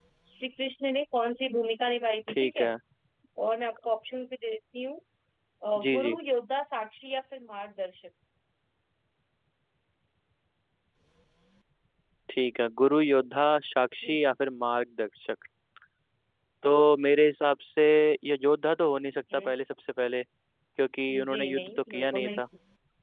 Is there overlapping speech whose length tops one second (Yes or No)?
Yes